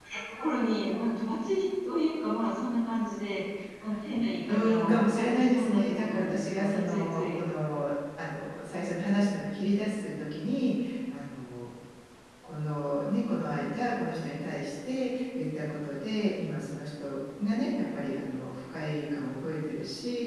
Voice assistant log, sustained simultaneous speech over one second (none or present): present